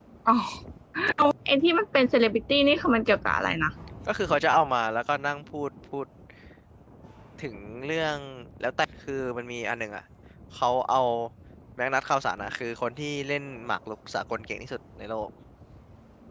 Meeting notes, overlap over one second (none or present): none